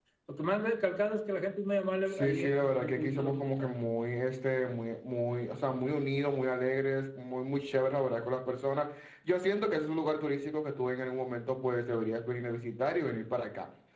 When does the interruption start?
2.0 s

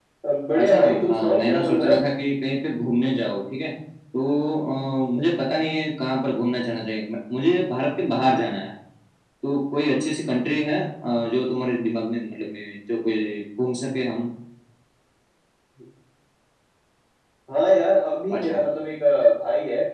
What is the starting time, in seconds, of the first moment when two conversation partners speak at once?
0.6 s

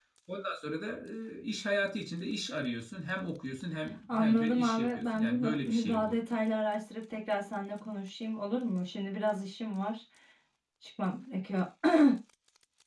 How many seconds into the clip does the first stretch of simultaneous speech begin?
4.1 s

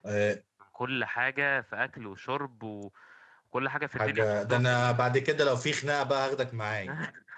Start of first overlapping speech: 3.9 s

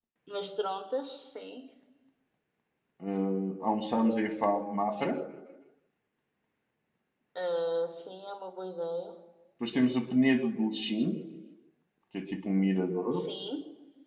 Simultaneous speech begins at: none

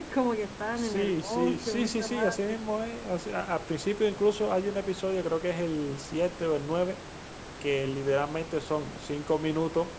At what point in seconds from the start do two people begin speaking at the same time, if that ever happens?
0.8 s

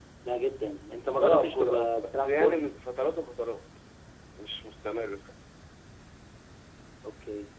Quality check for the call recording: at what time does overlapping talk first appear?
1.1 s

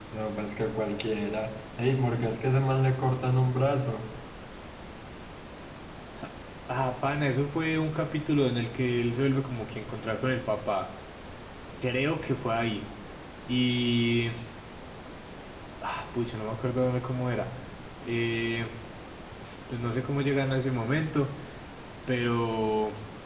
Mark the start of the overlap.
none

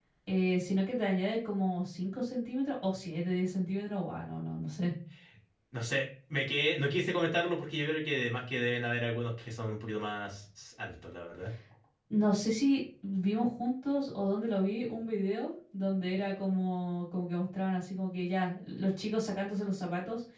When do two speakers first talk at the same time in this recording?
none

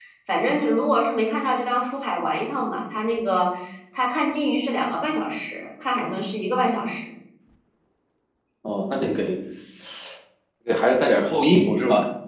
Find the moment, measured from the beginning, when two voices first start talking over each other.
none

